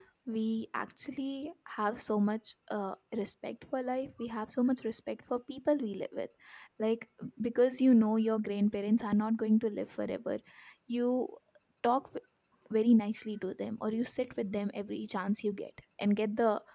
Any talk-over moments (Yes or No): No